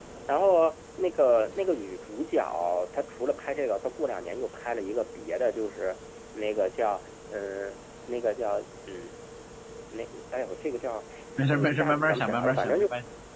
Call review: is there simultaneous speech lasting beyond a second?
Yes, from 11.5 s

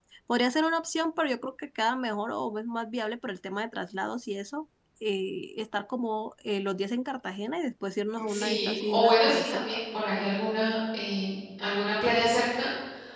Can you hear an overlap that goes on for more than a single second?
Yes, from 8.2 s

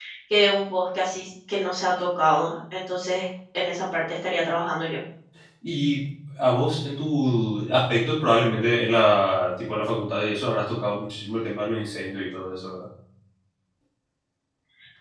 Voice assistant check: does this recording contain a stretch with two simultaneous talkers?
No

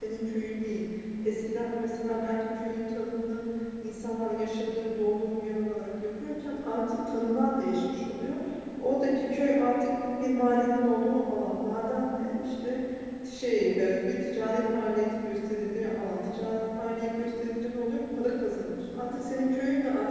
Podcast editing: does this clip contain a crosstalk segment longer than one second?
No

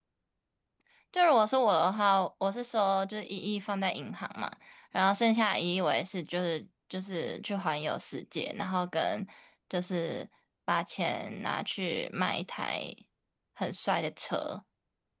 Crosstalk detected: No

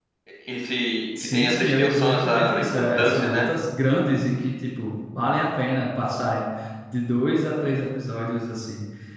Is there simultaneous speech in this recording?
Yes, from 1.2 s

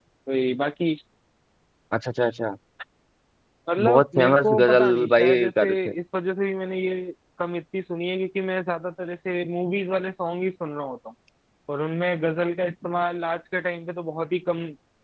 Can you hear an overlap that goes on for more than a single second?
Yes, from 3.8 s

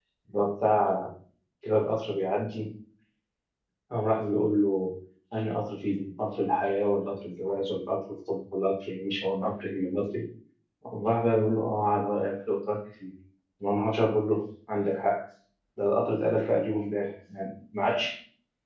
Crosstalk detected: No

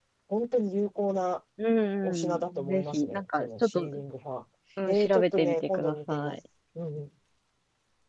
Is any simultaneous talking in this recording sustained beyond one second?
Yes, from 2.0 s

